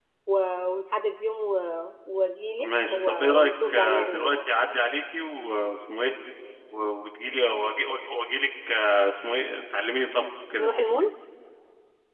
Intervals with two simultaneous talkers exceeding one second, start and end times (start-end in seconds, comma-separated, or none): 2.6-4.3